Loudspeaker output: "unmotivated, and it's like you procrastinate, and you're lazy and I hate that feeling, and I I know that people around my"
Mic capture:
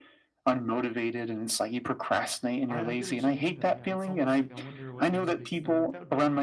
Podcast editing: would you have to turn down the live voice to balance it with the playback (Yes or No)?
No